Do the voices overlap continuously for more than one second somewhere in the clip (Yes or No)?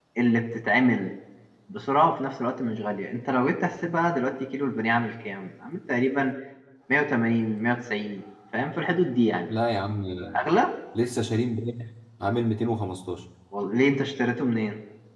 No